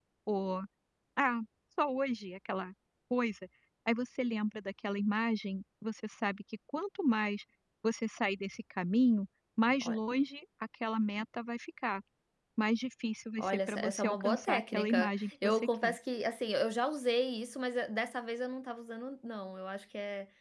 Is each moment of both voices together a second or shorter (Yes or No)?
No